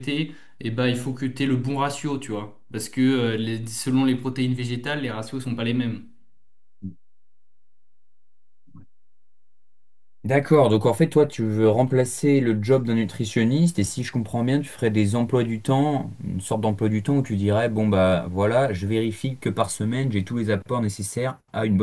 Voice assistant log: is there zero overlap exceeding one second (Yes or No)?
Yes